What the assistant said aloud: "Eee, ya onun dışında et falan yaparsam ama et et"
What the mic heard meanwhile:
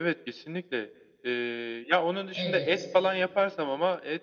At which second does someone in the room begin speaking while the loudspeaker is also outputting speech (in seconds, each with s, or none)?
2.3 s